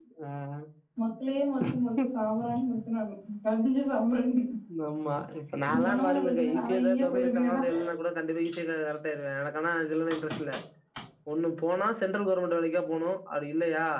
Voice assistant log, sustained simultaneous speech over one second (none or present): present